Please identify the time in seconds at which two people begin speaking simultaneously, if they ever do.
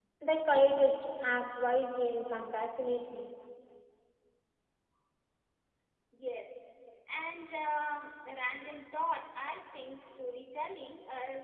none

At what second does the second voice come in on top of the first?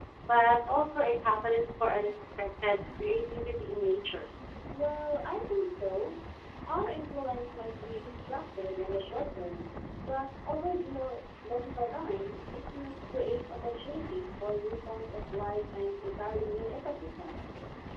none

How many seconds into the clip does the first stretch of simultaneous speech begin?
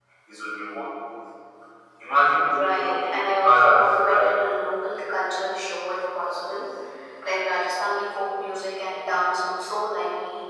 2.5 s

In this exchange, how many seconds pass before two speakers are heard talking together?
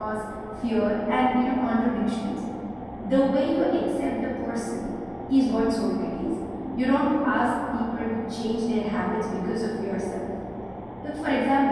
none

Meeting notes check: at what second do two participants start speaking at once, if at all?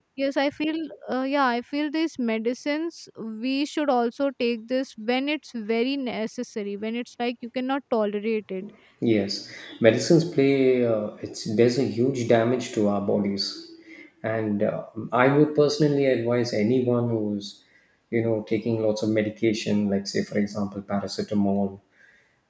none

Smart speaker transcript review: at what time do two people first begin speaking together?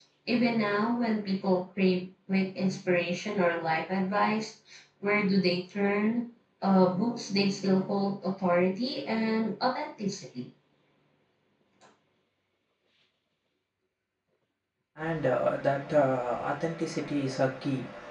none

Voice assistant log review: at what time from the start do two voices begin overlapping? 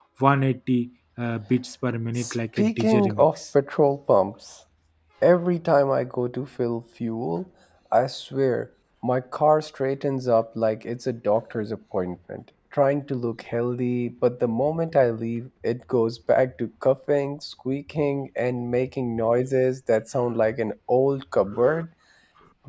2.2 s

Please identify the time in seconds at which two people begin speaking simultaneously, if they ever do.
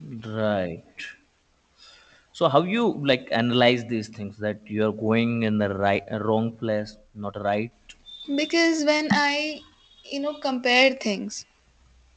none

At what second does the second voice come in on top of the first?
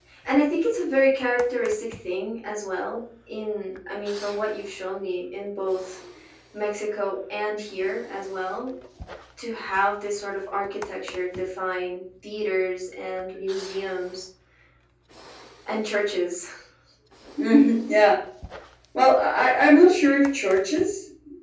none

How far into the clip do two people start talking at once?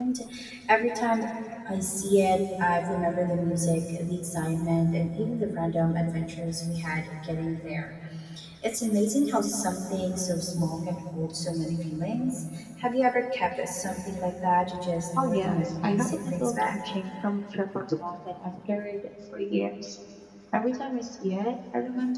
15.2 s

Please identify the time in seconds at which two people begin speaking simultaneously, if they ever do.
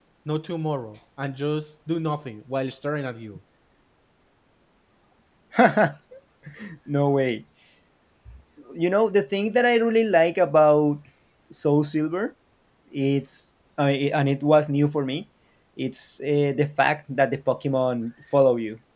none

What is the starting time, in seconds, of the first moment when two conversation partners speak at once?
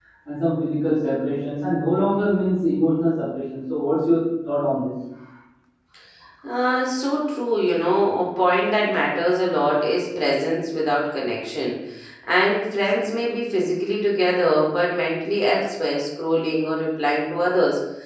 none

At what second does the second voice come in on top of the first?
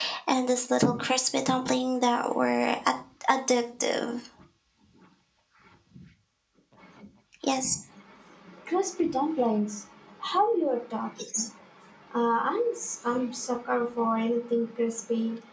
none

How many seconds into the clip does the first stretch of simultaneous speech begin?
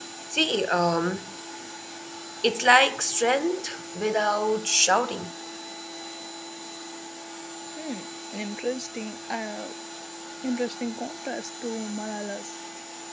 none

